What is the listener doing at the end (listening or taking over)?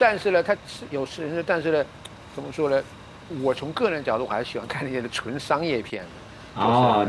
taking over